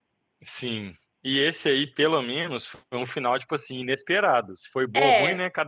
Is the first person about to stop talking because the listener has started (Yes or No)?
No